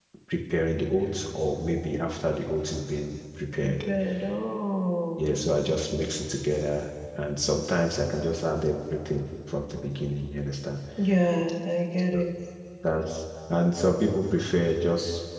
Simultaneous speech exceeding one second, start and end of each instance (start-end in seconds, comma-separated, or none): none